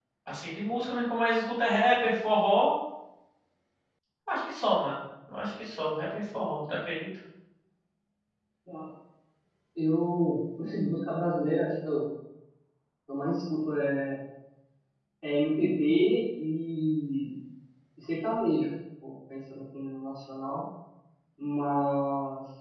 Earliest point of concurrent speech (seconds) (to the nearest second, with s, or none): none